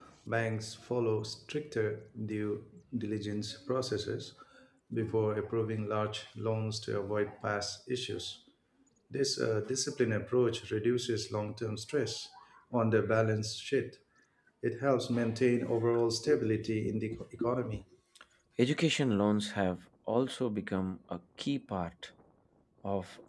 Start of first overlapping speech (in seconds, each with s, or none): none